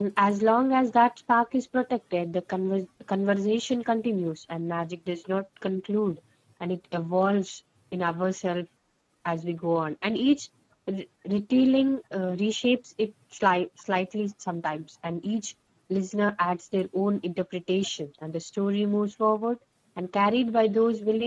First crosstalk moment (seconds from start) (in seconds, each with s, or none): none